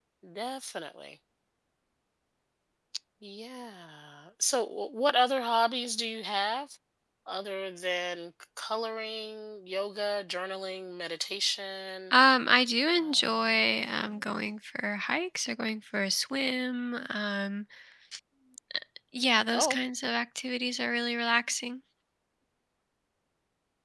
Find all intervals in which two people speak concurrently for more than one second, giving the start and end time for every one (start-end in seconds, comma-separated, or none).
12.9-14.4